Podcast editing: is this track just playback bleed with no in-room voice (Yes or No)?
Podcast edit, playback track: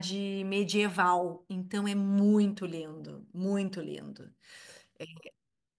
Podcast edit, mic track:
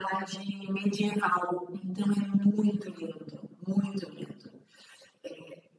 Yes